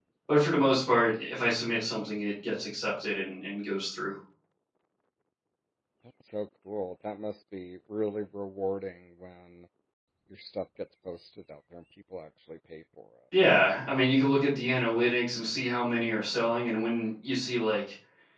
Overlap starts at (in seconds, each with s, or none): none